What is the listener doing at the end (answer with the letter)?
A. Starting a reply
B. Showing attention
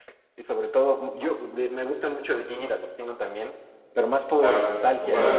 A